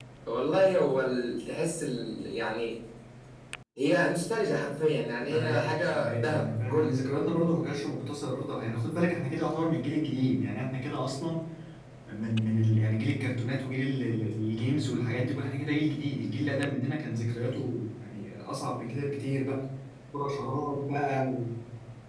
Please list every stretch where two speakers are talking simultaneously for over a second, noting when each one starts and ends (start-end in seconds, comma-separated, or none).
5.2-6.9